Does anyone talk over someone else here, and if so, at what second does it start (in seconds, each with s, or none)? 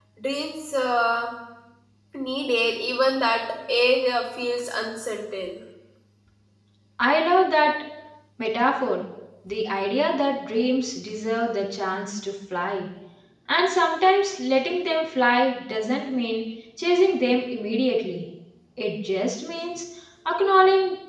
none